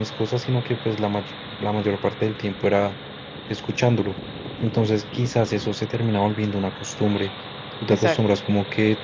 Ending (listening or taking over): listening